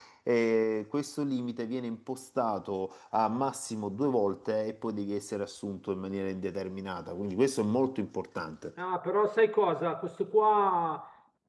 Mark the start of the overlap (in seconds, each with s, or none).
none